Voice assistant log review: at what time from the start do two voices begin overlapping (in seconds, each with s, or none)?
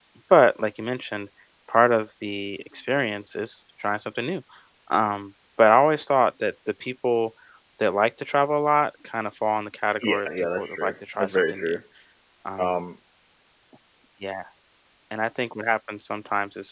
10.0 s